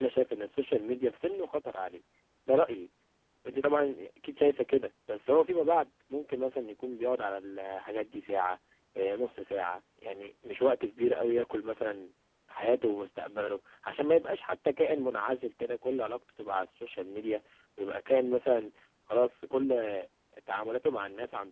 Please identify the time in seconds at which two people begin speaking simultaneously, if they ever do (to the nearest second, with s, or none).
none